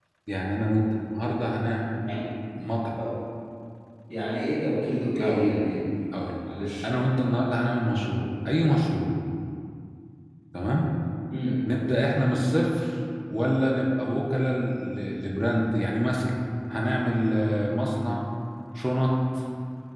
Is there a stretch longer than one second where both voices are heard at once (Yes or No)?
No